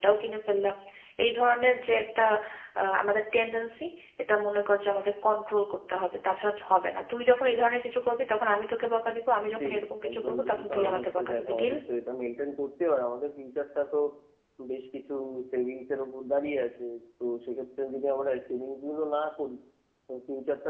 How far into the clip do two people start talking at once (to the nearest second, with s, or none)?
10 s